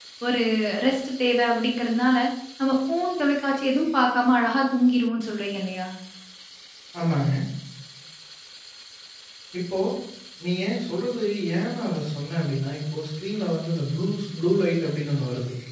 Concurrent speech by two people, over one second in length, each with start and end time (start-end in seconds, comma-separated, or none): none